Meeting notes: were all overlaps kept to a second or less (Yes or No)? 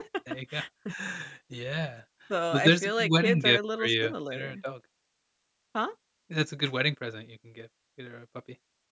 No